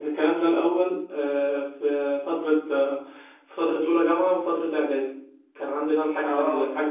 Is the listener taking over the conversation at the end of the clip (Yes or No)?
No